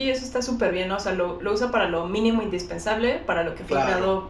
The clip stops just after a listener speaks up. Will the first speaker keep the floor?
Yes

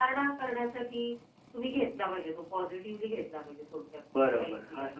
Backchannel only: No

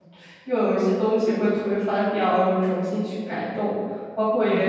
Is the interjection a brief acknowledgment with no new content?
No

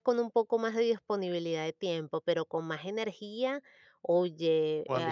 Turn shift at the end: No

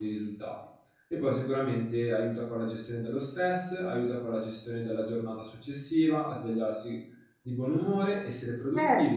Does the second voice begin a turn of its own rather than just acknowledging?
Yes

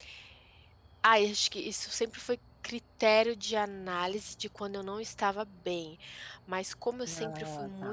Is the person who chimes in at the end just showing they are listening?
Yes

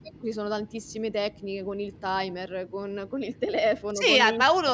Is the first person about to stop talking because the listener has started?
Yes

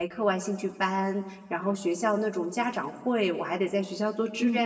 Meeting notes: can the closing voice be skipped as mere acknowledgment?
Yes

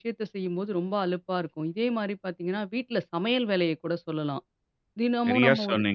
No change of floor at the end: No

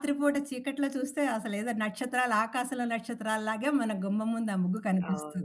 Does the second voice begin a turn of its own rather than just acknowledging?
Yes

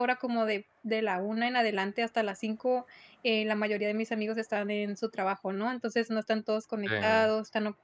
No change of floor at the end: Yes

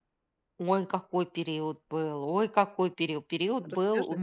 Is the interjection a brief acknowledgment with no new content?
Yes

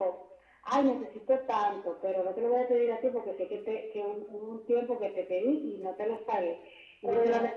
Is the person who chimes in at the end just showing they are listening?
Yes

